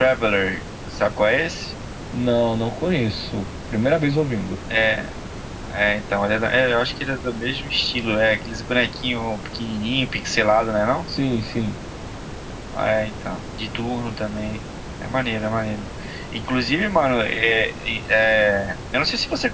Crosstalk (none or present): none